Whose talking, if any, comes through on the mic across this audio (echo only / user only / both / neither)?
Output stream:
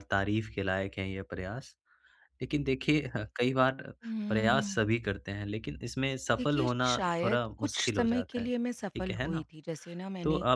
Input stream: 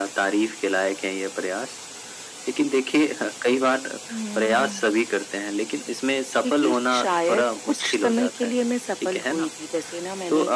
echo only